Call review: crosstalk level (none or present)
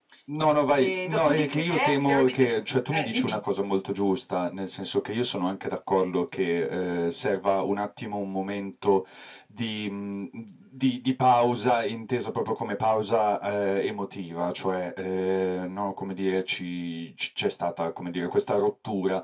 present